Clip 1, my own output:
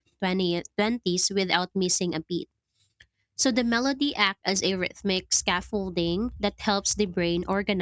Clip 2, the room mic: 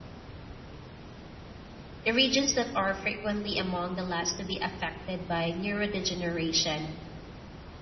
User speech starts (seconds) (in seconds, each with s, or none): 2.0 s